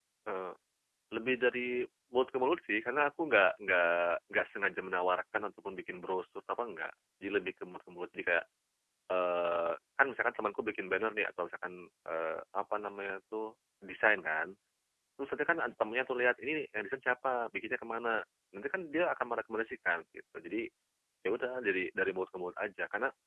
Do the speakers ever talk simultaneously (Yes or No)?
No